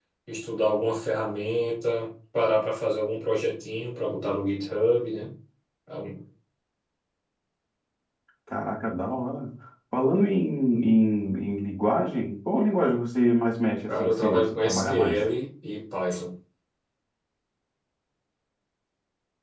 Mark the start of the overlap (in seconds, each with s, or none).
13.9 s